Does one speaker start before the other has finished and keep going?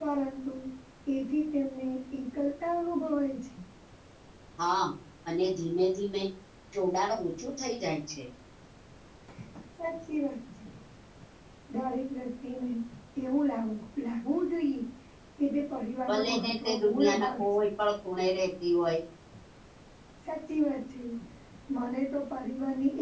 Yes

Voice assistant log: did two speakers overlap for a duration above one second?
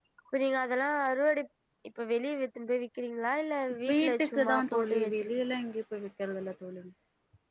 Yes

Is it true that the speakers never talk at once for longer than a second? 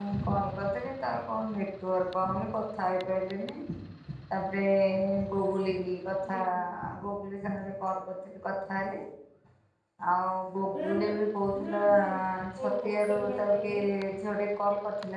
No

